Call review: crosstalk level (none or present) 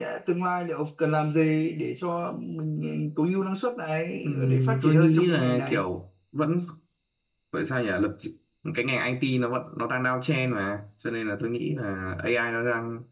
present